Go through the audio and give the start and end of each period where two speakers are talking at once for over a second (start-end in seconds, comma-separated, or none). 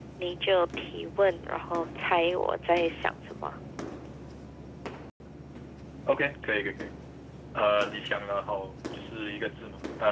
none